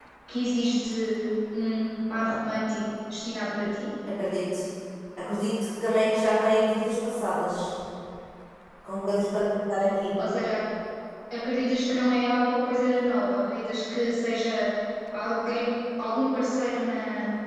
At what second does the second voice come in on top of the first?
none

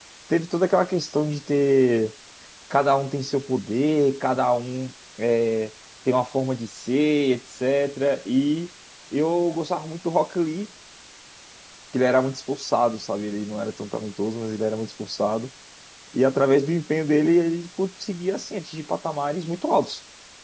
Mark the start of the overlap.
none

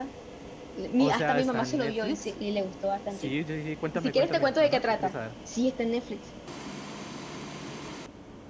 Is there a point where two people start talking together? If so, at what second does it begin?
1.0 s

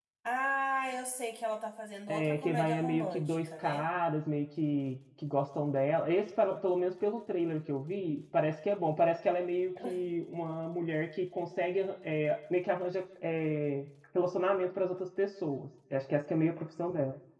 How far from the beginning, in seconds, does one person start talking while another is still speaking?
2.1 s

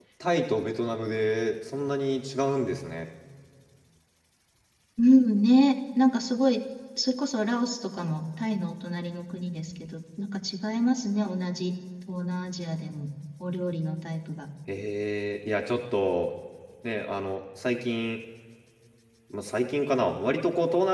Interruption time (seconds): none

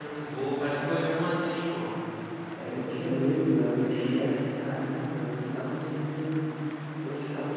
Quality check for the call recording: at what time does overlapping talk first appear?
none

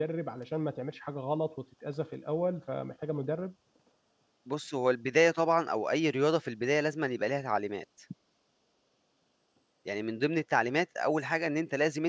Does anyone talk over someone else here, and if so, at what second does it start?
none

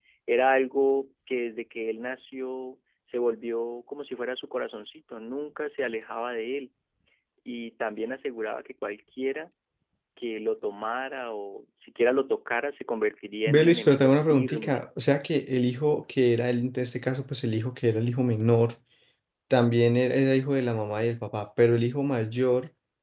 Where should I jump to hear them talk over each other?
13.5 s

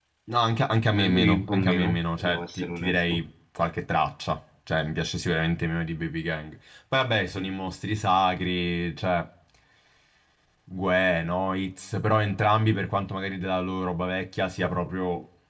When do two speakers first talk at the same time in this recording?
0.9 s

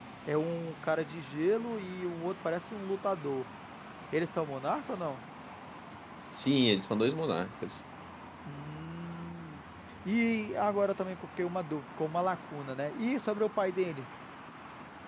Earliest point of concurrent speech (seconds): none

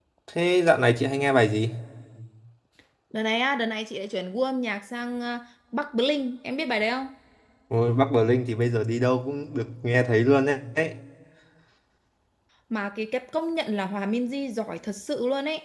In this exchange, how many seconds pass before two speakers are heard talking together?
none

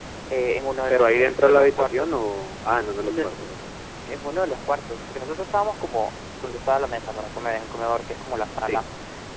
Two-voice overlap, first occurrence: 0.9 s

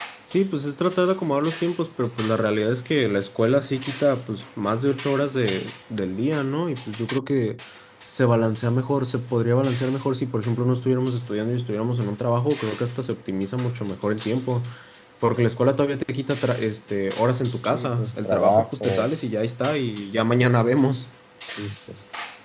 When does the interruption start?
17.6 s

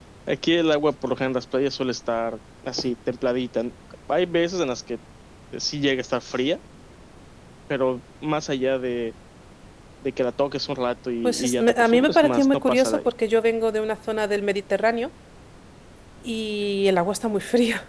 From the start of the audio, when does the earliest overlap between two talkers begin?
11.2 s

